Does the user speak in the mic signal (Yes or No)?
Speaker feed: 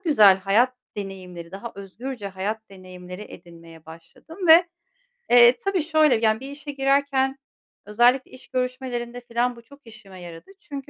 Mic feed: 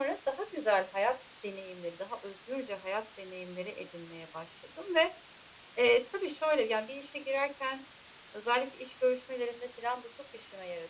No